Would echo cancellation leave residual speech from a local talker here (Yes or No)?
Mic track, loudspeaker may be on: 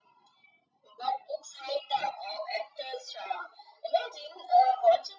No